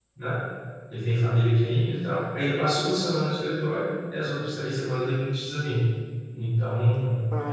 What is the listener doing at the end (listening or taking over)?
listening